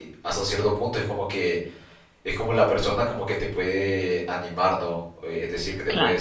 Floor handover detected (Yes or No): No